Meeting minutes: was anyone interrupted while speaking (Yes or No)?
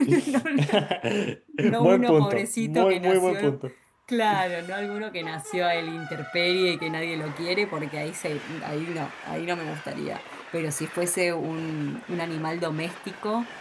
Yes